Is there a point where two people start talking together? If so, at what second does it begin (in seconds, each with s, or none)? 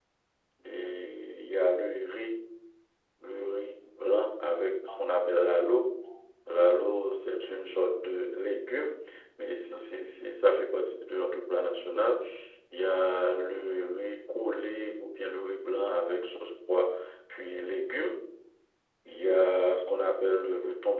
none